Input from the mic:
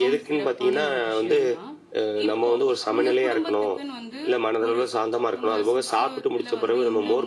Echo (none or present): present